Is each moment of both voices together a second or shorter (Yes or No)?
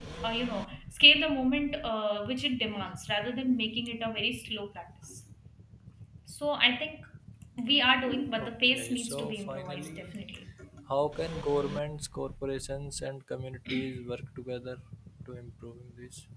No